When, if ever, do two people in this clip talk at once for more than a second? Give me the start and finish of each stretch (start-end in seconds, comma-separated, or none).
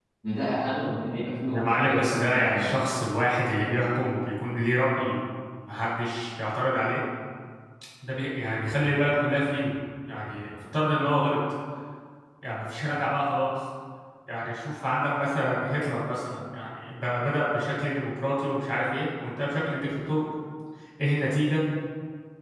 1.5-2.7